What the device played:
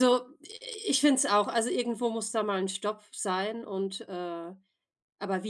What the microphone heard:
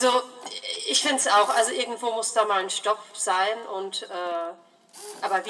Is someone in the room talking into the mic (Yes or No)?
No